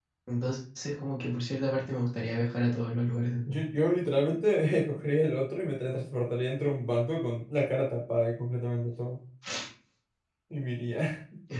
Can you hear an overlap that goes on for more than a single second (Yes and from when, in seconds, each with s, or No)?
No